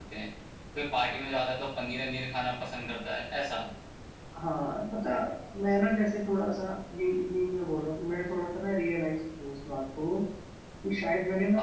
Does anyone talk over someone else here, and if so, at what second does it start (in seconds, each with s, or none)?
none